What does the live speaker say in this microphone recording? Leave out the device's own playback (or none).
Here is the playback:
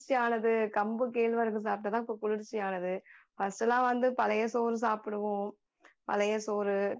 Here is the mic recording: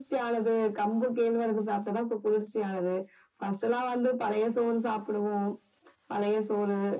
none